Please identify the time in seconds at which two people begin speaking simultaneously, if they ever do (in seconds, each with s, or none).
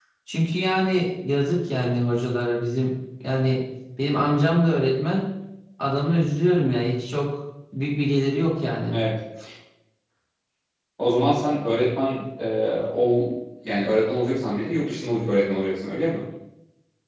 none